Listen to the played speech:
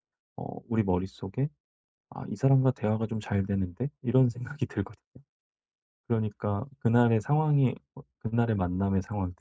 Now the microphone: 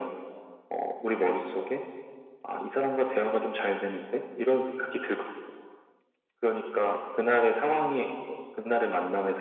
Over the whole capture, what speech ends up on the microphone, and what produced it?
echo only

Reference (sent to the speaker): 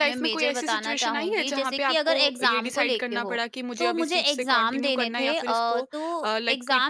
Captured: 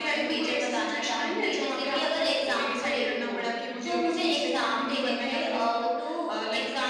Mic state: echo only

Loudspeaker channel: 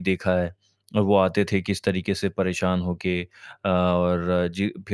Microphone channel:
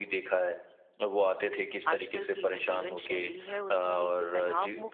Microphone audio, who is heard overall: both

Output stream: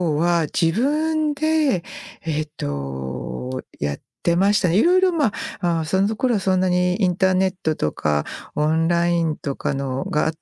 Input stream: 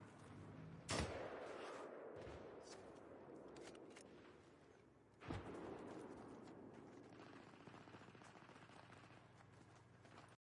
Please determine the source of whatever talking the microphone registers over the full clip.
neither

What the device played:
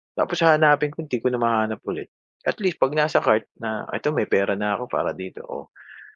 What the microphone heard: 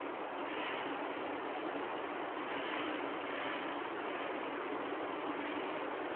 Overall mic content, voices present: neither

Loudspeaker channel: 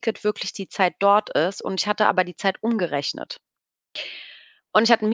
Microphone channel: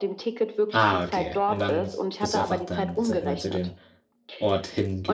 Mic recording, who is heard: both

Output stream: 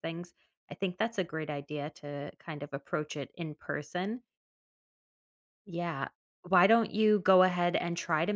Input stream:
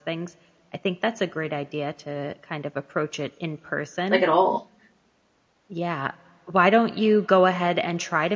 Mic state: both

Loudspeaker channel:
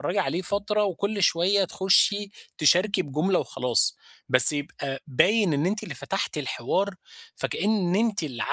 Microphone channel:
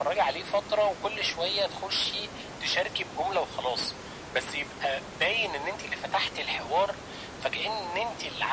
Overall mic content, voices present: echo only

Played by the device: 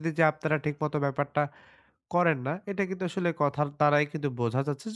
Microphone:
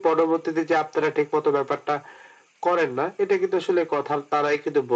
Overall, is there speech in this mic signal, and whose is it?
echo only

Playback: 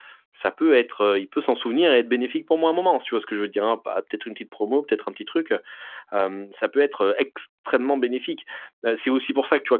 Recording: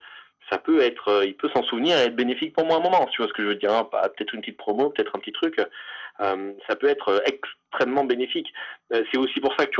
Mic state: echo only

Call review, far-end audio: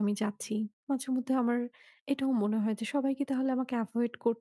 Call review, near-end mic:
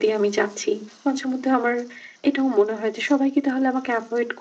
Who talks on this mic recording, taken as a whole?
echo only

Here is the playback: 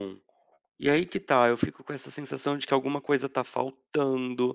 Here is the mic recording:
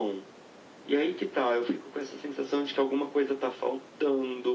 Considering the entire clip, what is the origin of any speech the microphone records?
echo only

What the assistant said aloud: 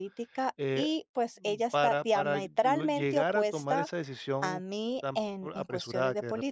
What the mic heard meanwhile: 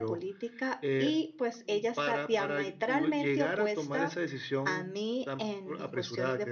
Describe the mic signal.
echo only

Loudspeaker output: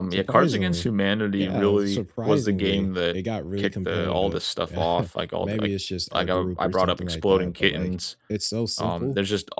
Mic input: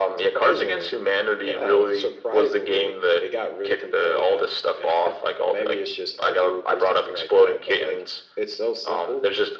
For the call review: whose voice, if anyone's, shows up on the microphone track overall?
echo only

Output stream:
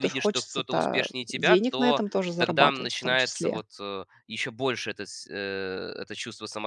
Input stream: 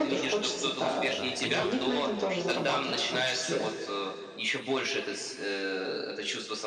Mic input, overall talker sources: both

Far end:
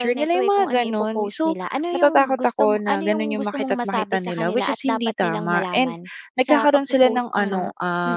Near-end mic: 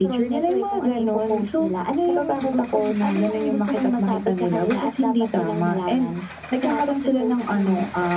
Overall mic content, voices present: echo only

